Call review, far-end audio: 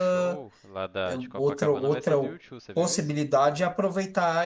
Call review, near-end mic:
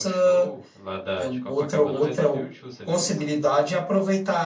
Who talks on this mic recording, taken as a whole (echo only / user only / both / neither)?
echo only